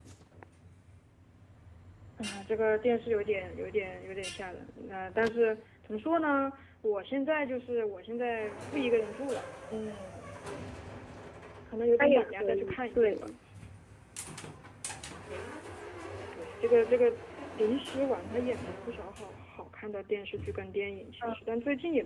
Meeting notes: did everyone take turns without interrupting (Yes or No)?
No